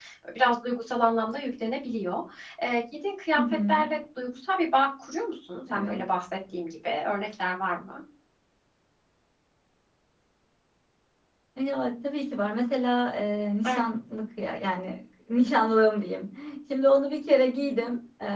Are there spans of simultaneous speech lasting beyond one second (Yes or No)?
No